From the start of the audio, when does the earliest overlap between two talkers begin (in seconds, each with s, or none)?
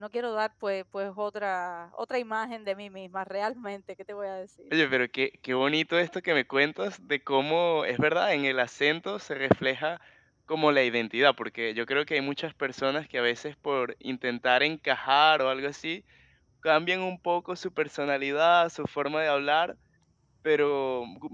none